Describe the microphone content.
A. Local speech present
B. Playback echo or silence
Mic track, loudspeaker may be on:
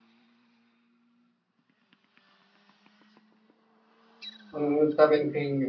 A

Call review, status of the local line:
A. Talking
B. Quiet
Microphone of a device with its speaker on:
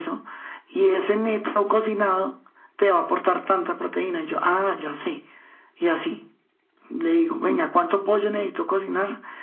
B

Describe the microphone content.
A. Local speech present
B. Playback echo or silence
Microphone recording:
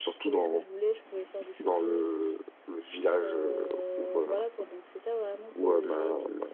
A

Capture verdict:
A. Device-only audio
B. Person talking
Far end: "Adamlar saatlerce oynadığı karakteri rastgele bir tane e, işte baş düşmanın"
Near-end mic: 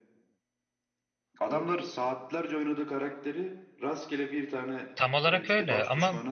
B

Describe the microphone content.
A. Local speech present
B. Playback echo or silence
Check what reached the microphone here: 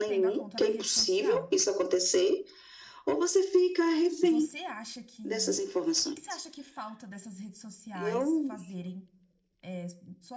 A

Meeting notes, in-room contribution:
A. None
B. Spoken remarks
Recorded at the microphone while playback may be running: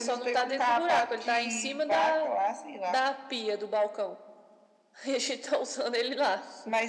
A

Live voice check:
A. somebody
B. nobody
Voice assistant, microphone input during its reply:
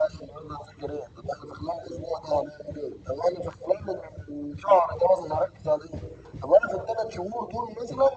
B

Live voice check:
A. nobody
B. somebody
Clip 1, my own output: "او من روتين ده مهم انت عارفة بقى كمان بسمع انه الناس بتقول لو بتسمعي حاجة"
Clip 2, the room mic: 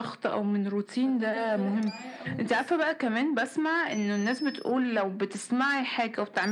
B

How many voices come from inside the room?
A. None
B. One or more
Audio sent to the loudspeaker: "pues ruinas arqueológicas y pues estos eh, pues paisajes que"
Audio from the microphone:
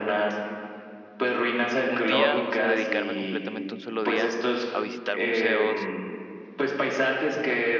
B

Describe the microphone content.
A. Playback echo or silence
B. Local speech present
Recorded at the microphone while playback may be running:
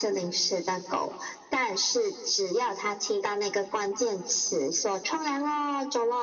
A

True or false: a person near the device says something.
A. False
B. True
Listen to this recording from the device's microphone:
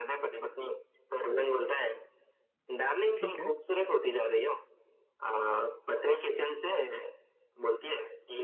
B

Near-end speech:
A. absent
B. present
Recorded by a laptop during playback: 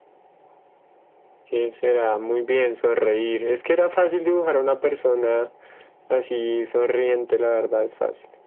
A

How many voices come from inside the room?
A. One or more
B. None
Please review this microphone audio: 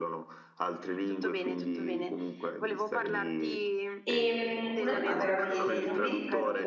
A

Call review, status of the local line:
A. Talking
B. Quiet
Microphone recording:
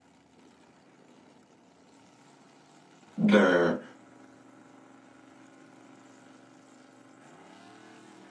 A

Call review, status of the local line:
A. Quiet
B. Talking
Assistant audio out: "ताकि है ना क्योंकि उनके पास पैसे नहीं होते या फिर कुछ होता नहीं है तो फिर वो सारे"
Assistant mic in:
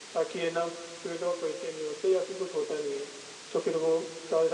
A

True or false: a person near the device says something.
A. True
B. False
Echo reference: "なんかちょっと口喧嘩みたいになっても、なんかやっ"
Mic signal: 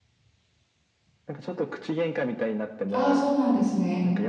A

